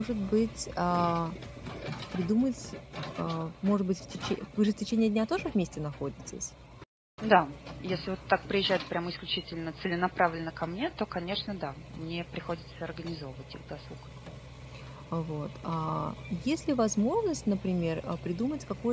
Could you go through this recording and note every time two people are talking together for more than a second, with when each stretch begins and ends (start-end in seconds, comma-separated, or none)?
none